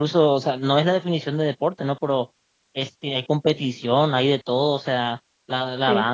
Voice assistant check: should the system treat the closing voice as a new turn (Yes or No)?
No